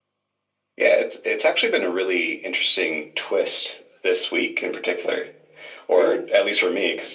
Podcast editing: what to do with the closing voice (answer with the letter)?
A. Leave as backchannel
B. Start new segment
A